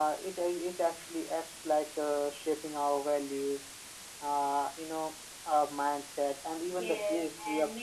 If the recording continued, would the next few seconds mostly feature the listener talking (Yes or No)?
Yes